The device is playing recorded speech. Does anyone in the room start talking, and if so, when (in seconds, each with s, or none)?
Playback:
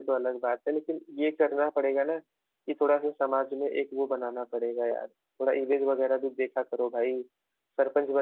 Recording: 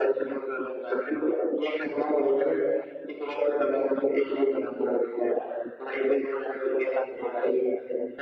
none